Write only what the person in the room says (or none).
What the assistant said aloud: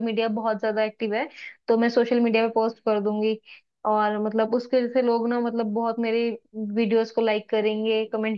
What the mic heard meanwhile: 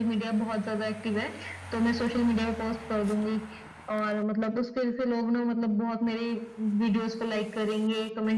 none